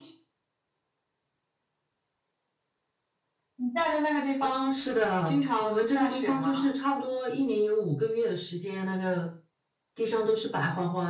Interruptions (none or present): present